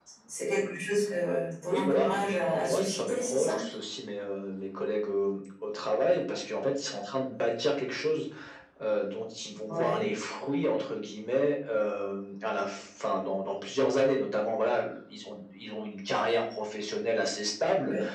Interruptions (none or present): present